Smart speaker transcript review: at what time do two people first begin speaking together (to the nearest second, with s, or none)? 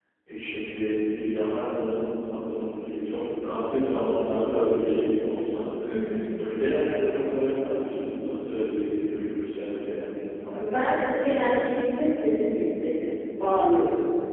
none